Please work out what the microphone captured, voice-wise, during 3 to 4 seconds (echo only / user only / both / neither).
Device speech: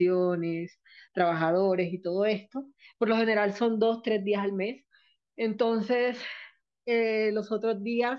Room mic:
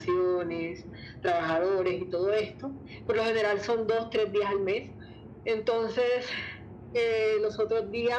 echo only